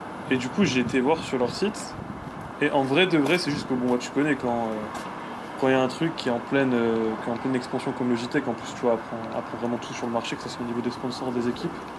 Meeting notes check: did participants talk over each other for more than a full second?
No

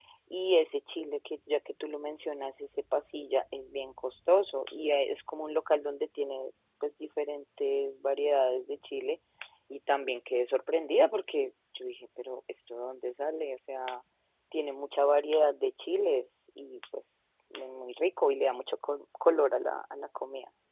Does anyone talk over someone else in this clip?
No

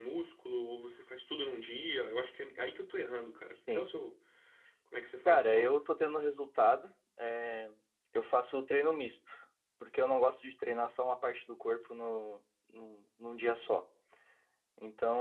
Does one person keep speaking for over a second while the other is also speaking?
No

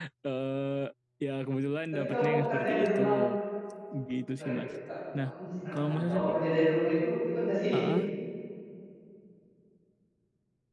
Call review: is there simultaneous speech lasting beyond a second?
Yes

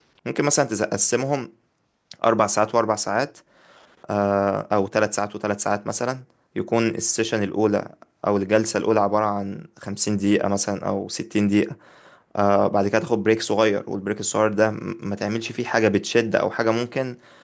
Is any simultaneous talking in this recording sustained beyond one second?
No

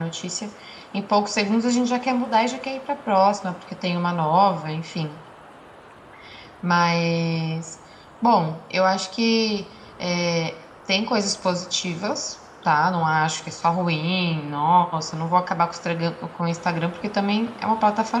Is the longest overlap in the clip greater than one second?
No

